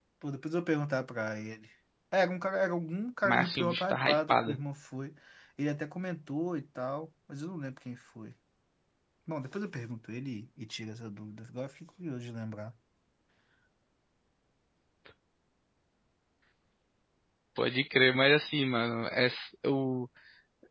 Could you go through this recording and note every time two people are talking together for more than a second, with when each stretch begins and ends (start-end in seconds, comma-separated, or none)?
3.2-4.5